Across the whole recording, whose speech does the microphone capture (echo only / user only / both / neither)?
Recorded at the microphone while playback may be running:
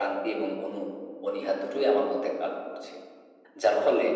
echo only